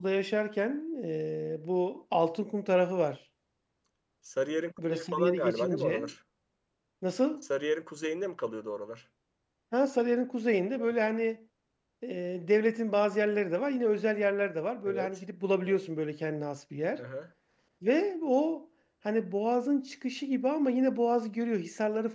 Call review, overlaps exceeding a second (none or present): present